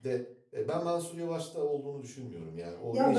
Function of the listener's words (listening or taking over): taking over